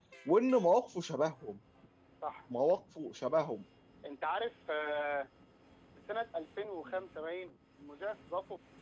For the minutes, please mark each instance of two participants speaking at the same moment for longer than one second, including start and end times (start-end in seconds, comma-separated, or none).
none